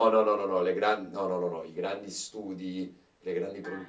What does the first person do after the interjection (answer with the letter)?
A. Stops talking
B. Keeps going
B